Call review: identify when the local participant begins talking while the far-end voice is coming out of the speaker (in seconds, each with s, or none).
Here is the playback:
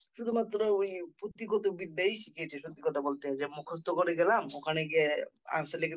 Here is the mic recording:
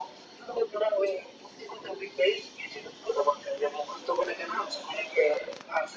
none